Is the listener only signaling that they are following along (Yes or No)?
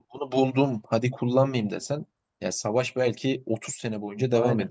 Yes